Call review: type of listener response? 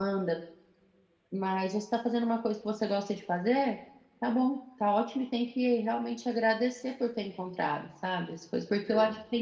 listening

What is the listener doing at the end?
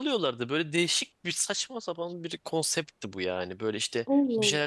listening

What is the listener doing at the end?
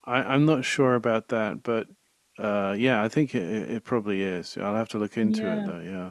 taking over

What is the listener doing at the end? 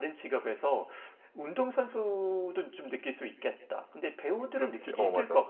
taking over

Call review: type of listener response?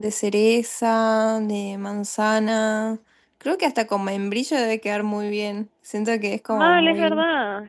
taking over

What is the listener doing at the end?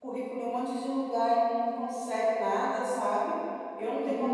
listening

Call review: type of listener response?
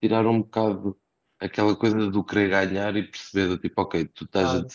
listening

